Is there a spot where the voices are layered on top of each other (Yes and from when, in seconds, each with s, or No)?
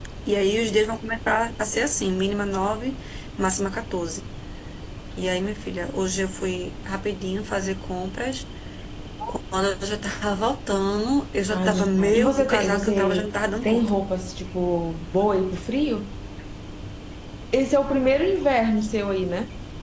Yes, from 11.5 s